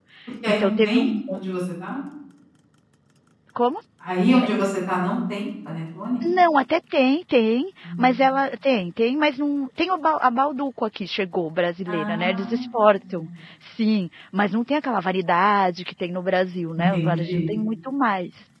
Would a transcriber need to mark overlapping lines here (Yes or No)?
Yes